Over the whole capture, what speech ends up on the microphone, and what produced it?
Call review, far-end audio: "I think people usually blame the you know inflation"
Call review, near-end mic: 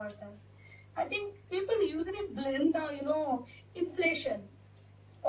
echo only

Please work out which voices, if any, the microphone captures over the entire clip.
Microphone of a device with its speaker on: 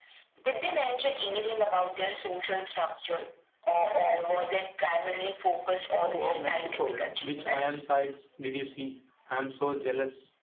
both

